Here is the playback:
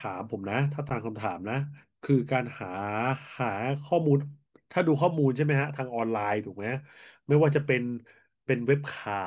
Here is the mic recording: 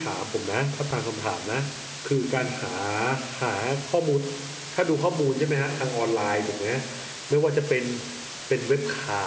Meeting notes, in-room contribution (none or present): none